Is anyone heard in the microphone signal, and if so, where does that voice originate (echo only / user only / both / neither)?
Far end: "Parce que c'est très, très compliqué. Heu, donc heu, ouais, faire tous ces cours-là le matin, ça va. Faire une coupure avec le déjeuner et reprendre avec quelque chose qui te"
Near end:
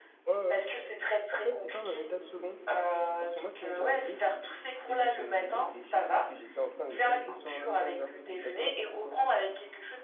both